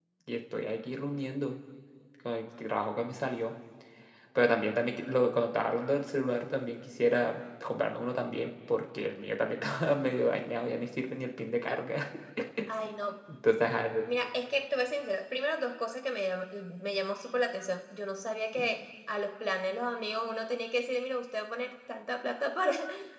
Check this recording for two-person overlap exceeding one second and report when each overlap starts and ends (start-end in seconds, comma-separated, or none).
none